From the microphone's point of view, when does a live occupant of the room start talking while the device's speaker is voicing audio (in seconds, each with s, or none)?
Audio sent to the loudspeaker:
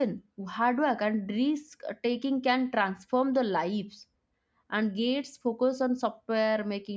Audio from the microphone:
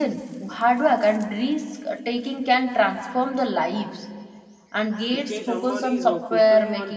5.2 s